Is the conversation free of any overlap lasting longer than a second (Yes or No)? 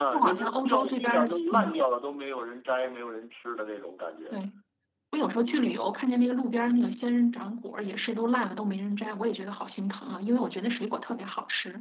No